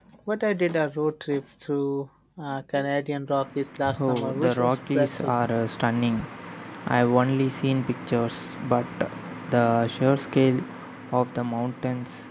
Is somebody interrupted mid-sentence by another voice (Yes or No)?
Yes